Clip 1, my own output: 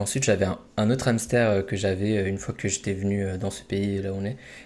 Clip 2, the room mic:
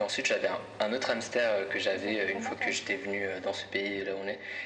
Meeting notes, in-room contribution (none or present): present